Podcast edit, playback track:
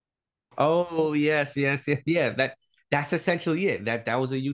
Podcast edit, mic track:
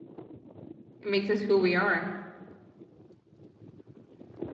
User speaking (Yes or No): Yes